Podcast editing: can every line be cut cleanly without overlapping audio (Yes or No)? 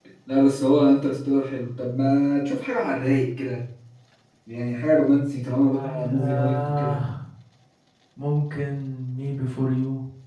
No